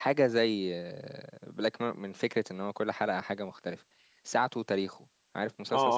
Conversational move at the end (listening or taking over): taking over